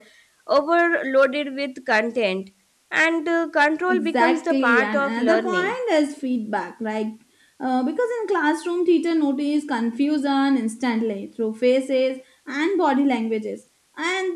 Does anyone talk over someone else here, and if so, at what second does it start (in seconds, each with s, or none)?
3.9 s